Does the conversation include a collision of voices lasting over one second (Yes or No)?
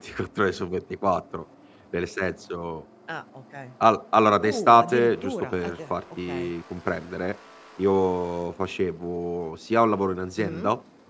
Yes